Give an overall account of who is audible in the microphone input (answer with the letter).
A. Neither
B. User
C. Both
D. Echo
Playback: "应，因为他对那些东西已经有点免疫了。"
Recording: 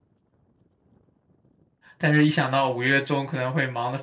B